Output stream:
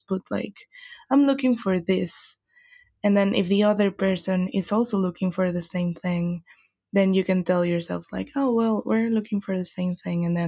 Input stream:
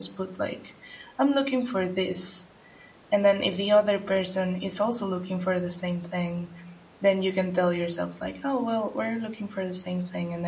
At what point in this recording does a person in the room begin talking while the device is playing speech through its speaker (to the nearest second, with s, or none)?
none